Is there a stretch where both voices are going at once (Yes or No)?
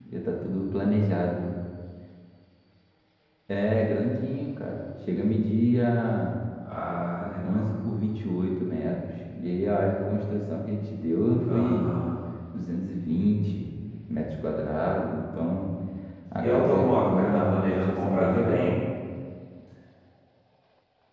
Yes